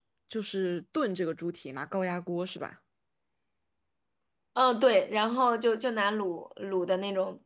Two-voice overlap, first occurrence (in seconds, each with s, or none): none